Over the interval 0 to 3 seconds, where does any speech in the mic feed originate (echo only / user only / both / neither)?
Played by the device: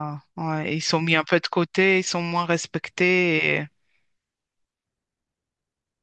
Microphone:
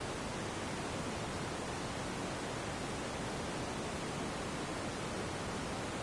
neither